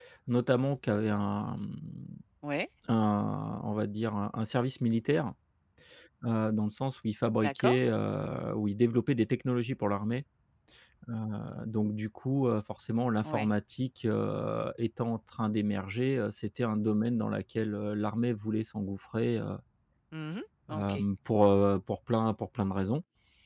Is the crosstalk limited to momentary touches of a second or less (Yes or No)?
Yes